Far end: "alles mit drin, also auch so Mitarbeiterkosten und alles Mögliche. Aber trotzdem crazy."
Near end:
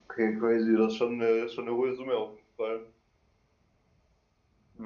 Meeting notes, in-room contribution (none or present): present